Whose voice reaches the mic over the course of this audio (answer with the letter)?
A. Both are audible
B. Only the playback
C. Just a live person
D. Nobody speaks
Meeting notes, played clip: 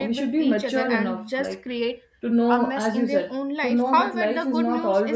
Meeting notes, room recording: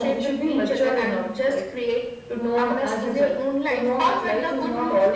B